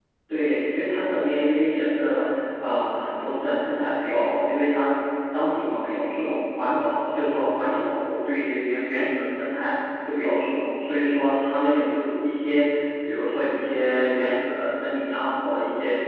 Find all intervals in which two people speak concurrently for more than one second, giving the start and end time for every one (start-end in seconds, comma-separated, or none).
none